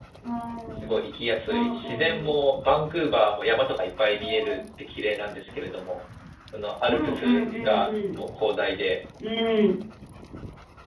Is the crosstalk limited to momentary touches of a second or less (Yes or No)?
No